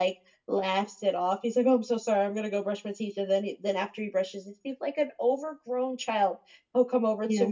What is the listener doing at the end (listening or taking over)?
listening